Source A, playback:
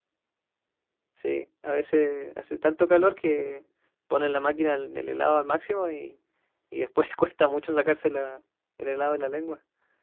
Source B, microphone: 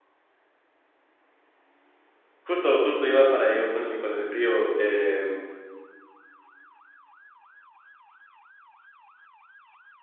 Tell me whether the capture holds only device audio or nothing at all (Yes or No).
No